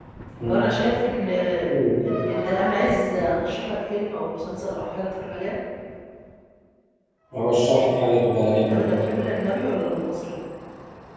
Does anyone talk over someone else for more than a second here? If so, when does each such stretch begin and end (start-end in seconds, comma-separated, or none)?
none